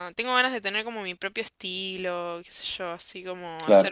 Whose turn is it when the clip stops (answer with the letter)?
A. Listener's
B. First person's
B